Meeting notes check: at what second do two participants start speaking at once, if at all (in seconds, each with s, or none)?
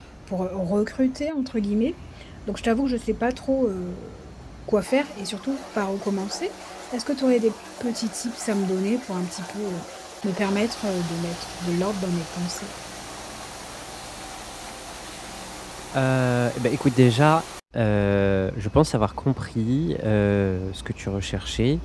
none